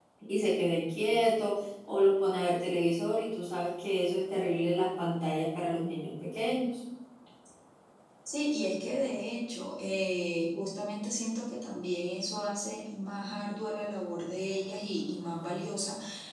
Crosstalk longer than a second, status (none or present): none